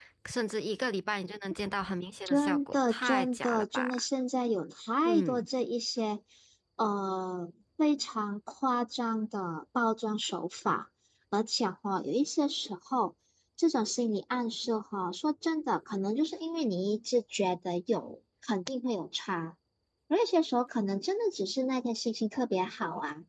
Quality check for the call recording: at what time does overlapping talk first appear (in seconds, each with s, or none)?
2.3 s